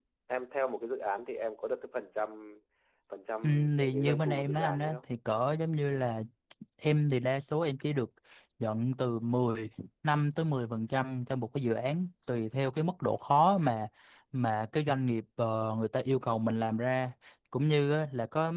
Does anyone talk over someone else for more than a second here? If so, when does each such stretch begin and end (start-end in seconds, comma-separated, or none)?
3.4-5.0